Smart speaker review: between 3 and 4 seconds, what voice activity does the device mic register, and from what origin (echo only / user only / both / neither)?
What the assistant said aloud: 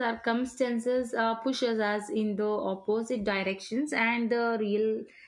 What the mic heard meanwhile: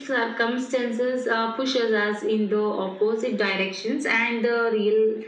echo only